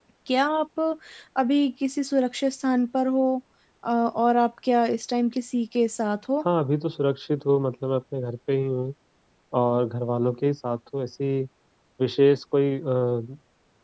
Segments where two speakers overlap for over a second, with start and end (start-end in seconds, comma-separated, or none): none